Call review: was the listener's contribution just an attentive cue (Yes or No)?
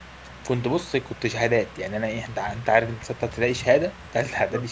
No